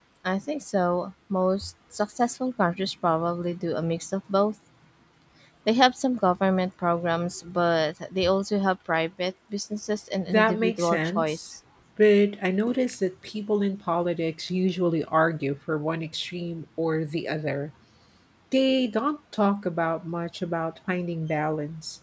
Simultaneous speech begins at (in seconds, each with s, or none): 10.3 s